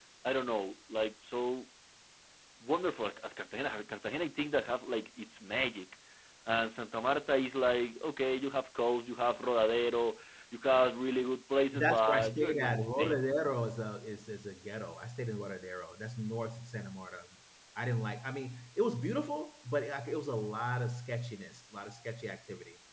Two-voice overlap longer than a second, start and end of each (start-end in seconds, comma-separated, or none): 11.7-13.2